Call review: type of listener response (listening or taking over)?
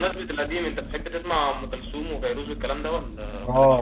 taking over